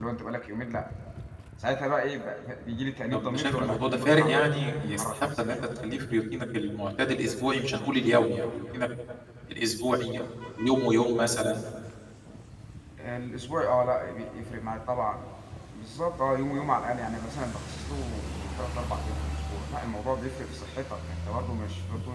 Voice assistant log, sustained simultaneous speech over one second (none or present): present